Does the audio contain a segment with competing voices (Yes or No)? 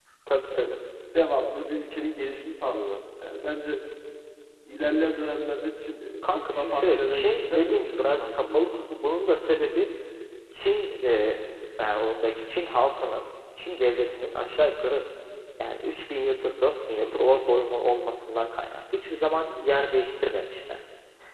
Yes